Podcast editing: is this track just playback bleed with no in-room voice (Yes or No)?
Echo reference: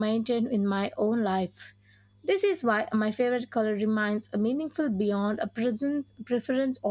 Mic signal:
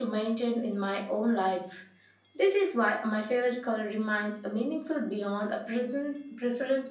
Yes